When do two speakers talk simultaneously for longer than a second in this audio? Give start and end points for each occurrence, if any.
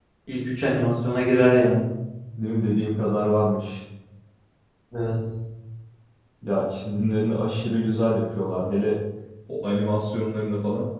none

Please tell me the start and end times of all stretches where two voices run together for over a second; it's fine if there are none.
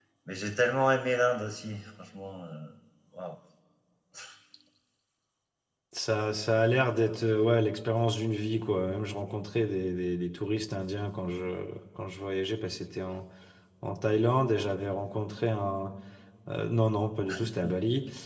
none

